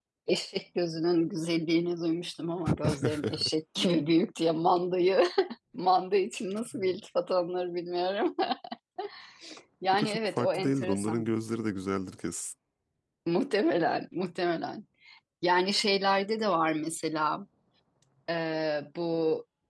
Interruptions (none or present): present